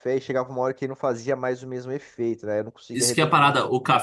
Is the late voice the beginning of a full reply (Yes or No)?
Yes